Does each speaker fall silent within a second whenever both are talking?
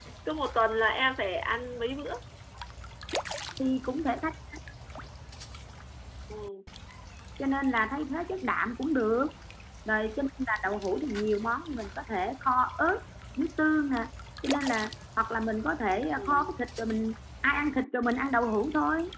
Yes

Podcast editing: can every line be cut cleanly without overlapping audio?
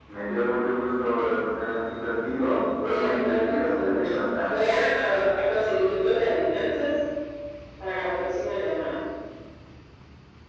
No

